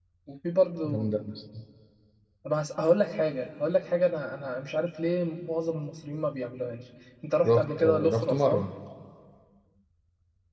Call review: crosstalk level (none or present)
present